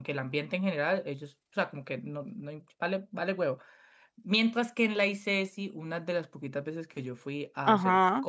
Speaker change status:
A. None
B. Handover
A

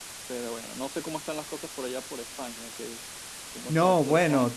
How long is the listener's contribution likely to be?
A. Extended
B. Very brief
A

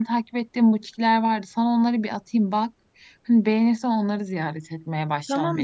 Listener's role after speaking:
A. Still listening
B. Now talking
B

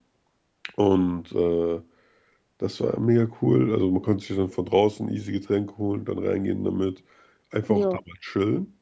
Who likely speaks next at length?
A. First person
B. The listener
A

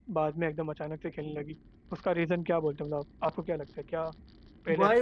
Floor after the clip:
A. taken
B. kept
A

